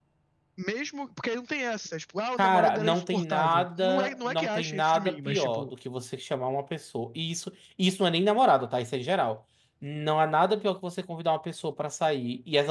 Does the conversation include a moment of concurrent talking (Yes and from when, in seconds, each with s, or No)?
Yes, from 2.4 s